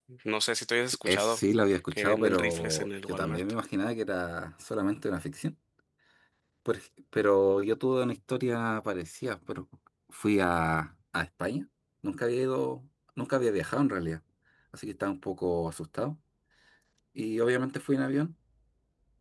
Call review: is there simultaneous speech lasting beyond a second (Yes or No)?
Yes